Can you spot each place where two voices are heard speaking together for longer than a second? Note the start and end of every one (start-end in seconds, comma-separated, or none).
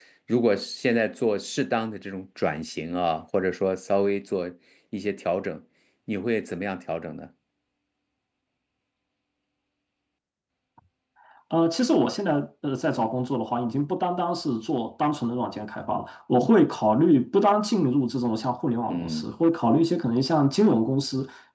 none